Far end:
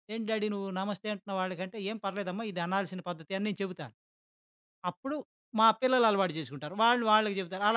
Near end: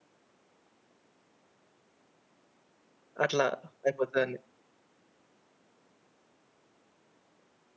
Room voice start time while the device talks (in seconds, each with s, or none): 3.2 s